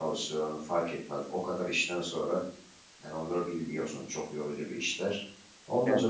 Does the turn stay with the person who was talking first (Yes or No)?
Yes